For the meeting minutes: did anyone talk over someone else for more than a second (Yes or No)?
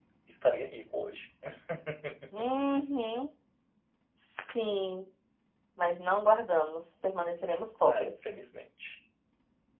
No